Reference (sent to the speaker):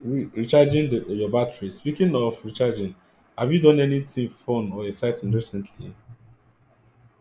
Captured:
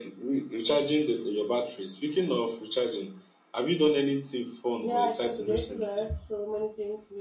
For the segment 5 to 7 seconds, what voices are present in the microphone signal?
both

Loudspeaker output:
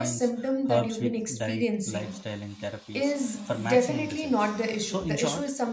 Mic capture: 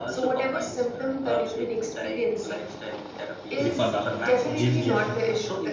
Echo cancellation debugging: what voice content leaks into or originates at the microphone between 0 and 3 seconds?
echo only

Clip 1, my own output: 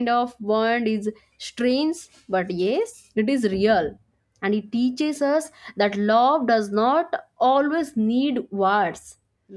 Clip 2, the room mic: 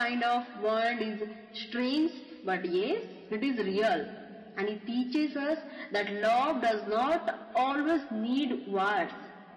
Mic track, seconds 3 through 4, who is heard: echo only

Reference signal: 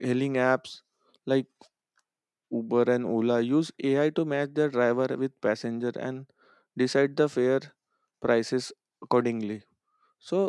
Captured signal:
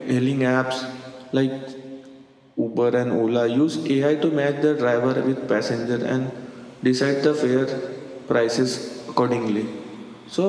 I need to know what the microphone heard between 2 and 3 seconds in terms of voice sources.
echo only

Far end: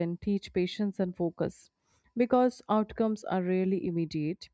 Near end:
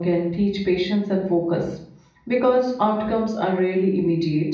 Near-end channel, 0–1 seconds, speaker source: echo only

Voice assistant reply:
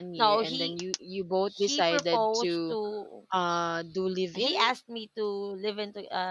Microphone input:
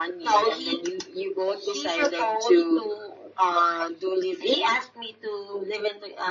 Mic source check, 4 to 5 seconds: echo only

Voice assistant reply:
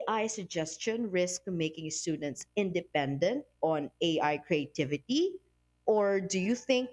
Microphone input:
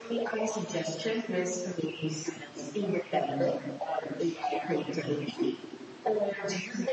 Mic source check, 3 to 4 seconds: echo only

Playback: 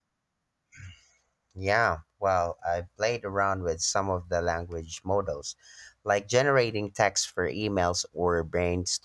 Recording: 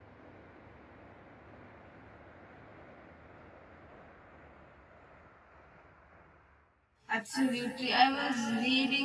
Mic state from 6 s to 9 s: user only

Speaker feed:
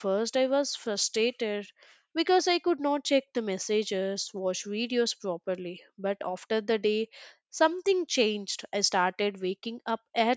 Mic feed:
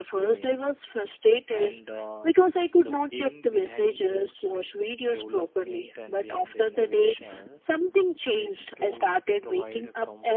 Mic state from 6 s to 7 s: both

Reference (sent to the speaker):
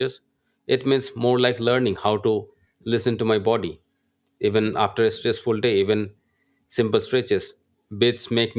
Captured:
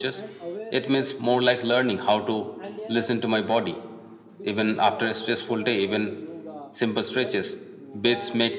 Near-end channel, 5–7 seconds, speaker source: both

